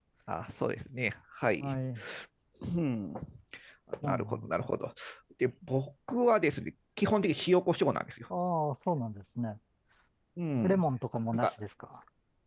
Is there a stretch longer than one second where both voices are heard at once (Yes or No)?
No